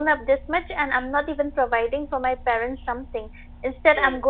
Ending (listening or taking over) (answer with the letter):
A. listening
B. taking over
A